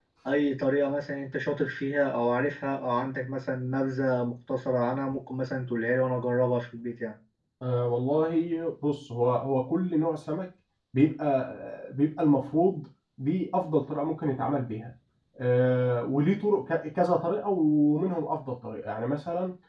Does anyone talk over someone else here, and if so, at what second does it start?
none

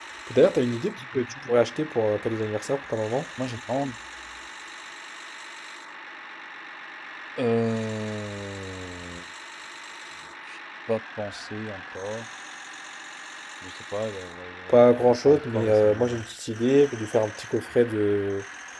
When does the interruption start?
15 s

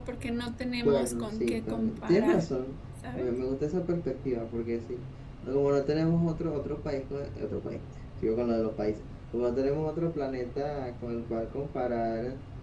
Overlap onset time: 1 s

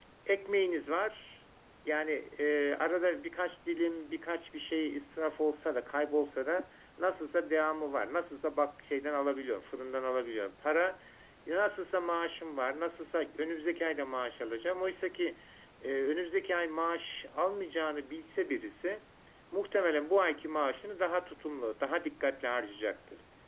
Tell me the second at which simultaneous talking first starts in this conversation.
none

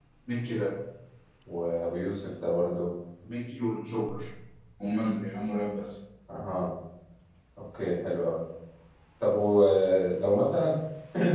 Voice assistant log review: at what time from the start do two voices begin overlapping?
none

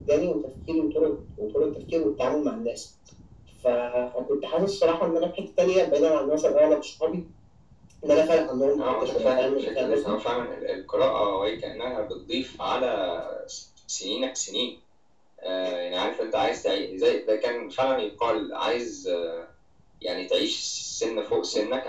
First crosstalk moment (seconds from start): 9 s

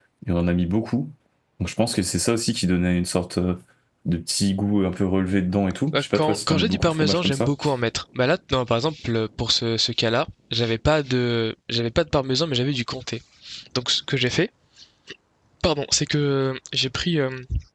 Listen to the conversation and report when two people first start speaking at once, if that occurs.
6 s

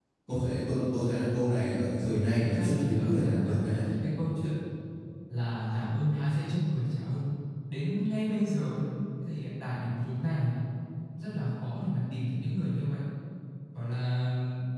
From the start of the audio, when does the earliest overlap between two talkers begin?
2 s

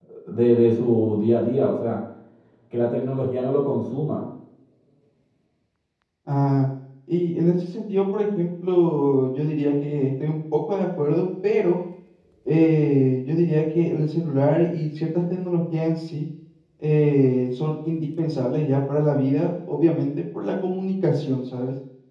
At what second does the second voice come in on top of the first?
none

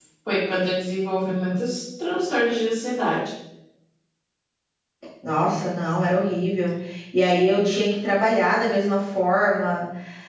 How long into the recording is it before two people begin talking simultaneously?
none

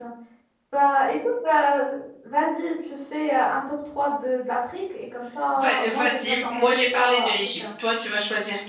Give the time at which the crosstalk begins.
6 s

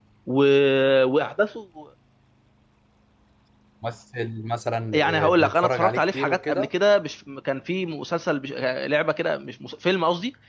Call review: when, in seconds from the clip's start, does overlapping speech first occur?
5 s

